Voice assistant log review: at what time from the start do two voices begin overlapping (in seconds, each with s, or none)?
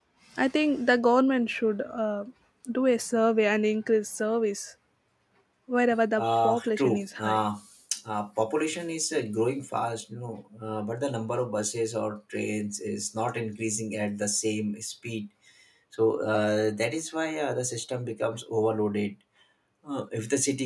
6.2 s